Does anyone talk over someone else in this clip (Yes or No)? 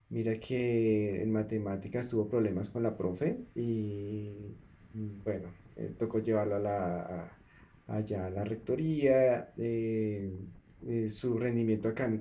No